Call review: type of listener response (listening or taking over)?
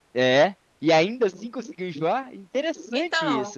taking over